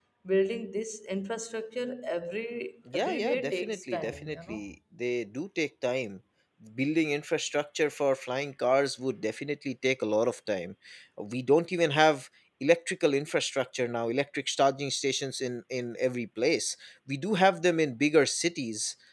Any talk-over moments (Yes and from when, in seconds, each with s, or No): Yes, from 2.9 s